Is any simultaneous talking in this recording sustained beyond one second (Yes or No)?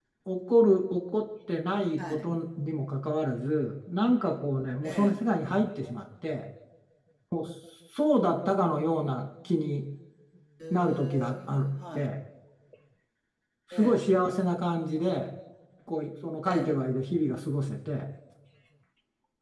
Yes